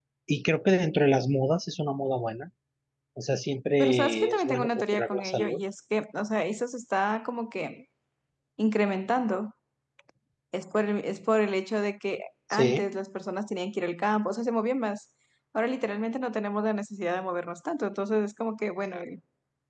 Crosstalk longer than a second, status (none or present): present